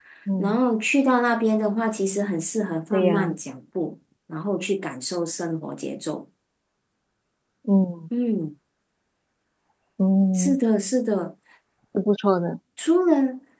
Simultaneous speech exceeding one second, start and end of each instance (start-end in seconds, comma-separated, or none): none